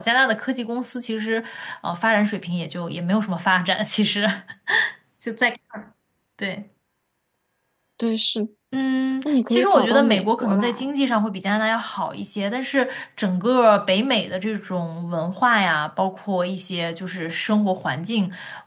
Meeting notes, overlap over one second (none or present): present